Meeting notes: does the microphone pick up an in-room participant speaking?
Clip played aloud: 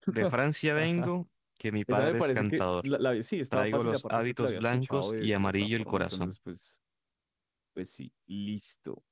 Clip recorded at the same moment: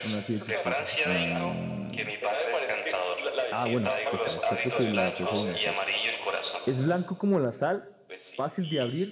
Yes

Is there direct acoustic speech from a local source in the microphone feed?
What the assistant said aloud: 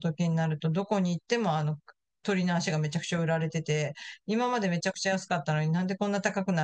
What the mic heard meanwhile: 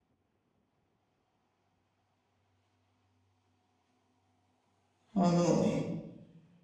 Yes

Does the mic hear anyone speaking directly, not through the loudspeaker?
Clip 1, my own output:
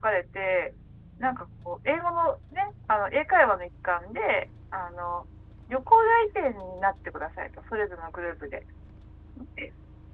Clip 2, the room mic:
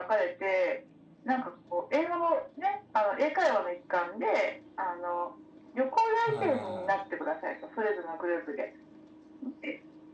Yes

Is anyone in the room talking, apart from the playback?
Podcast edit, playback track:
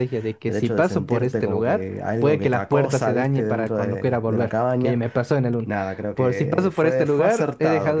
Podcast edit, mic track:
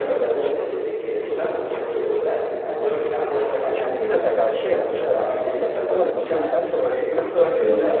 Yes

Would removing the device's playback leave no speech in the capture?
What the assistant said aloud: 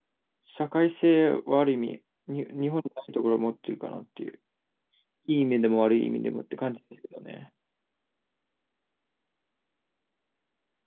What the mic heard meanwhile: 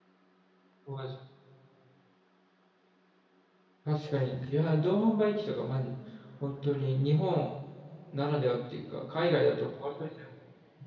No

